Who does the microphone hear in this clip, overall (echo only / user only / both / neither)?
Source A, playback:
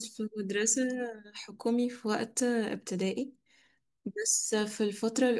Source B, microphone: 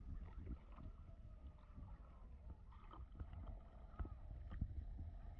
neither